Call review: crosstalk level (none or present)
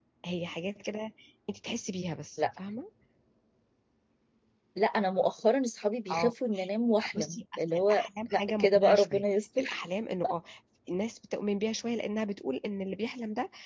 present